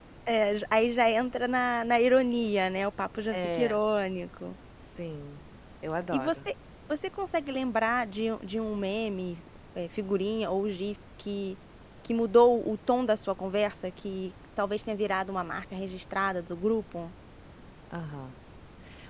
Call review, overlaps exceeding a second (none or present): none